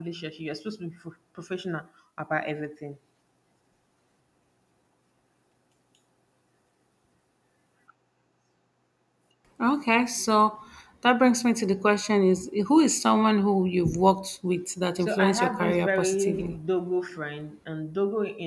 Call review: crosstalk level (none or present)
present